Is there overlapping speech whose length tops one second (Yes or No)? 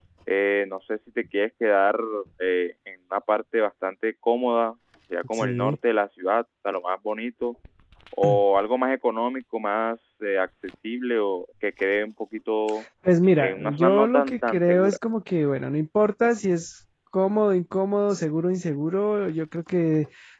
Yes